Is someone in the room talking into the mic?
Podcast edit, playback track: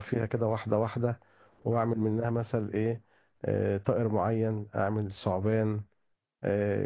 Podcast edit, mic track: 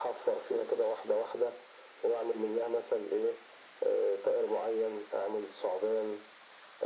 No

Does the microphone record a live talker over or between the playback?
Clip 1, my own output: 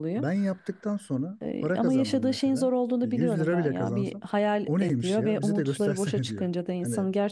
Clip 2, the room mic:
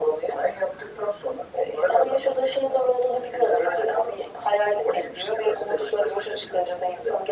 No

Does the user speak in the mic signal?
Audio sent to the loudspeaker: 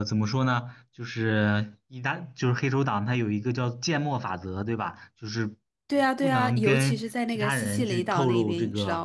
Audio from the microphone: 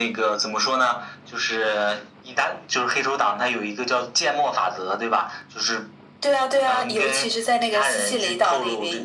No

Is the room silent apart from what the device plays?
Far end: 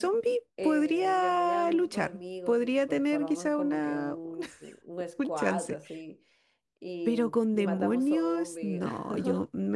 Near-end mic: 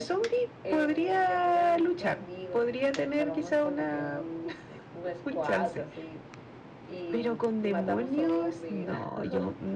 Yes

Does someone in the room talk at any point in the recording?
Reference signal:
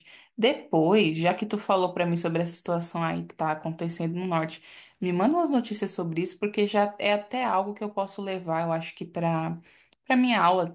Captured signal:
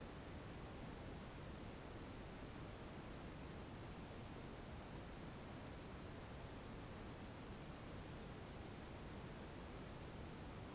No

